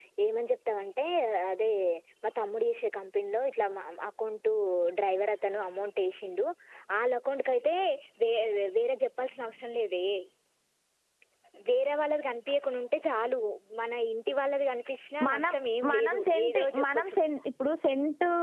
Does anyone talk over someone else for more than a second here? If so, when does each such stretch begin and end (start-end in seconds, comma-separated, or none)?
15.9-17.2